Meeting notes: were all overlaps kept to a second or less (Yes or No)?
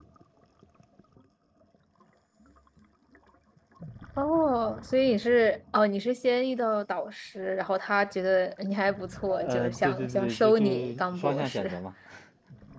No